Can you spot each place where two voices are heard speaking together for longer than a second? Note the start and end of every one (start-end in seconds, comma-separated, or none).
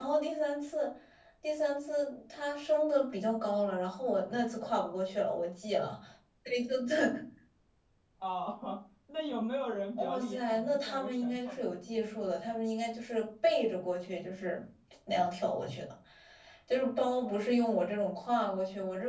10.0-11.7